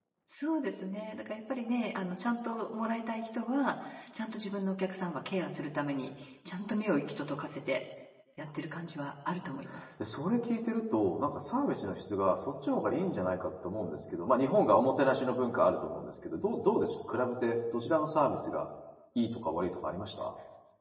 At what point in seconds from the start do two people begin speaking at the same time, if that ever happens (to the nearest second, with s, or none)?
none